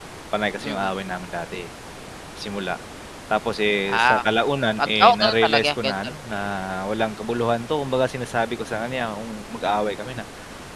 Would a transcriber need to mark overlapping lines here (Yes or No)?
Yes